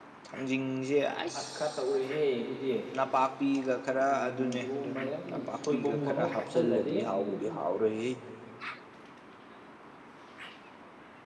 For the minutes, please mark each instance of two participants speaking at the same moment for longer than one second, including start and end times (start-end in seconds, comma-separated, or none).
4.1-7.6